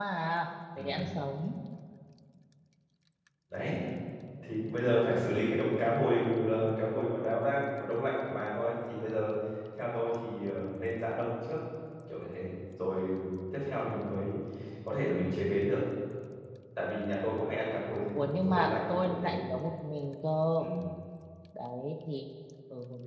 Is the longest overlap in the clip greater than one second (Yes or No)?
Yes